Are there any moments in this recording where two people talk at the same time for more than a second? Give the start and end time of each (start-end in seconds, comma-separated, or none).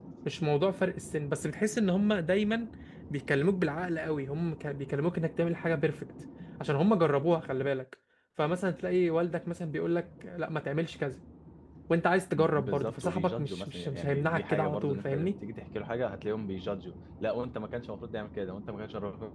12.3-15.4